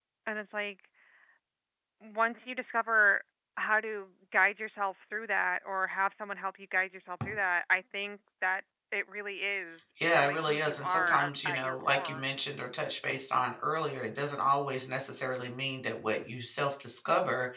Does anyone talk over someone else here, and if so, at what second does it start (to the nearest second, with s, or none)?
10 s